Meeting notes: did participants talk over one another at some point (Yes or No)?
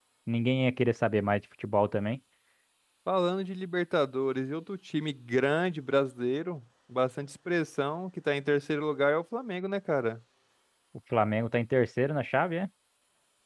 No